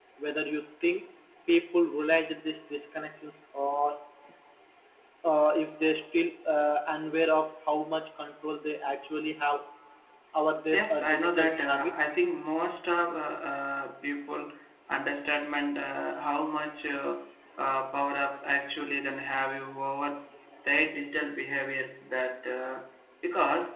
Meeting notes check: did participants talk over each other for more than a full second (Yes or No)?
Yes